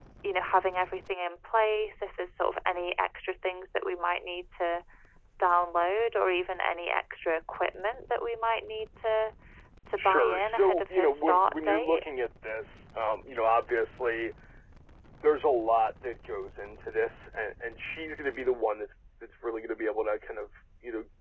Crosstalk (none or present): present